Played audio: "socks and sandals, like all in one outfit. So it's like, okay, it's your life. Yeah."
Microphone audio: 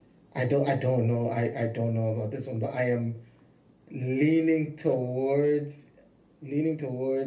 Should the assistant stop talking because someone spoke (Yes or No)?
Yes